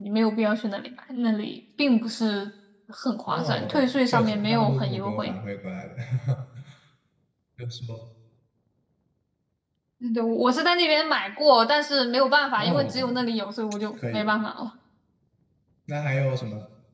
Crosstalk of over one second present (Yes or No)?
Yes